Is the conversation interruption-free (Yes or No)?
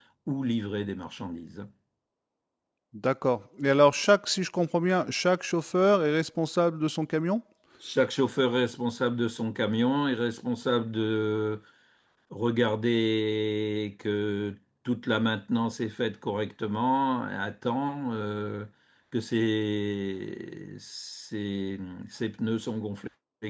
Yes